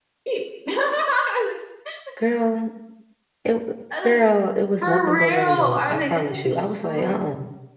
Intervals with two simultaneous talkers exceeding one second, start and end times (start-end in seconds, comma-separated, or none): 4.8-7.2